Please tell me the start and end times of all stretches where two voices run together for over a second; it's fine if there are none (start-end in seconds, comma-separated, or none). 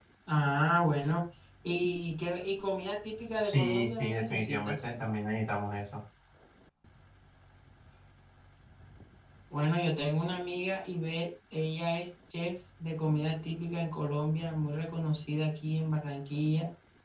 3.3-4.7